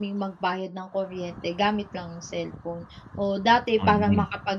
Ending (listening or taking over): listening